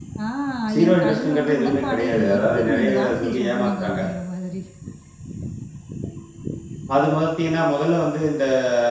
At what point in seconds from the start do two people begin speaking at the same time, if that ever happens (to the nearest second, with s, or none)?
1 s